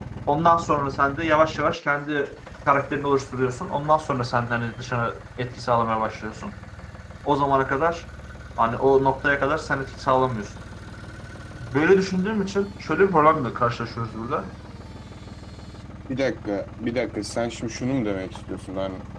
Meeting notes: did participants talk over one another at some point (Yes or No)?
No